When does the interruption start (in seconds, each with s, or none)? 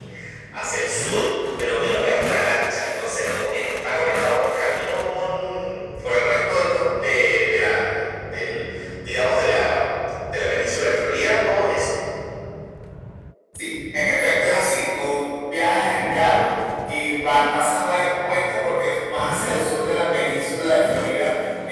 none